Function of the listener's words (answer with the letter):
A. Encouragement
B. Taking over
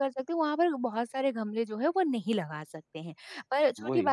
A